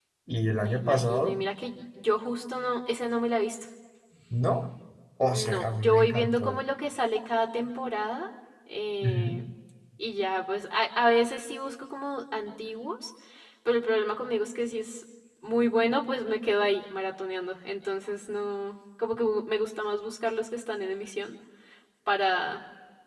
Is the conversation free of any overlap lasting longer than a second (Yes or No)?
No